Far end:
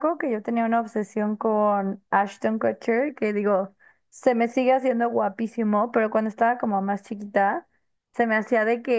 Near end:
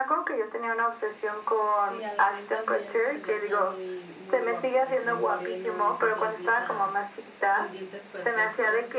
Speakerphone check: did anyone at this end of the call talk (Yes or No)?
Yes